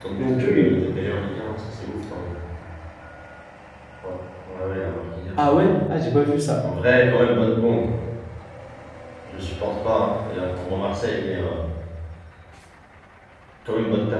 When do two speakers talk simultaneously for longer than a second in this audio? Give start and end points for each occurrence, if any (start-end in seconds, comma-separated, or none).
none